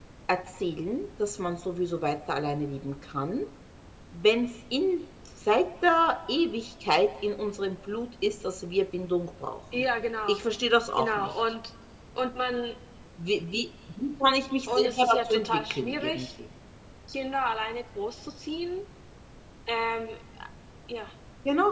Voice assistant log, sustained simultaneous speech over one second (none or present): present